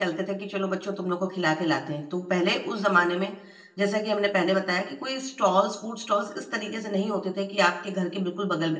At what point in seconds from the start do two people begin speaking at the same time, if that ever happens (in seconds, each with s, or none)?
none